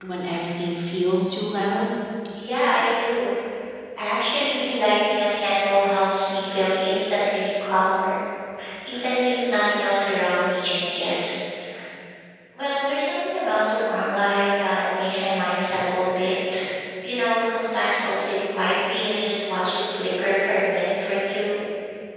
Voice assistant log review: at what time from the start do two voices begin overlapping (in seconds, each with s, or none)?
none